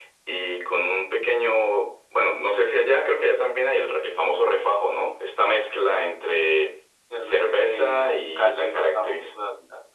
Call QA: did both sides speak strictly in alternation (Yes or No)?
No